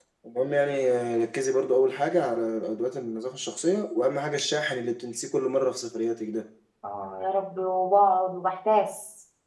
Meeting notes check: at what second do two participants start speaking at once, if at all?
none

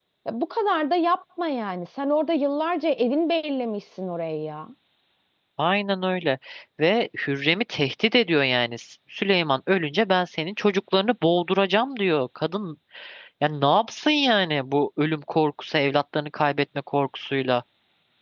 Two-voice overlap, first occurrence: none

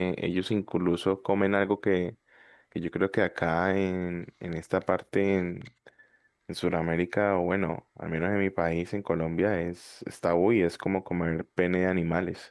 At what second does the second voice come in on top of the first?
none

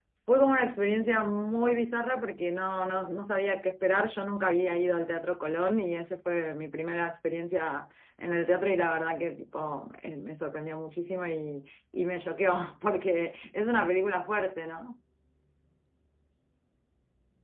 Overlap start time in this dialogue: none

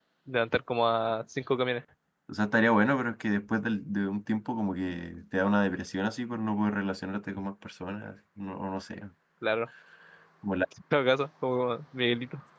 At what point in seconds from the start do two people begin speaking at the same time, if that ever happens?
none

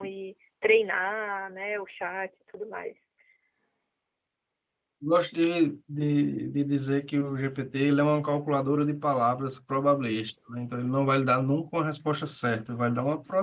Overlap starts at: none

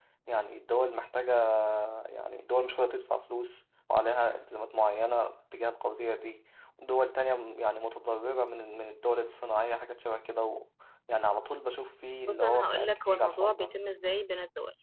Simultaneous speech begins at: 12 s

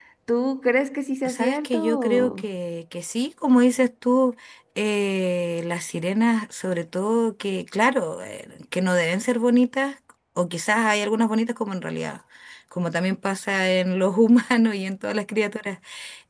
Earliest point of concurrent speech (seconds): 1 s

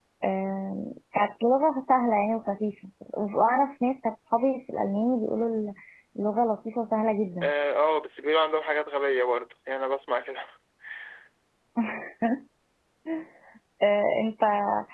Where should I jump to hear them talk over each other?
none

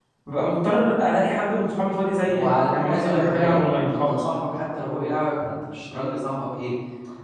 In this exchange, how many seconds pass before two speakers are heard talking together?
2 s

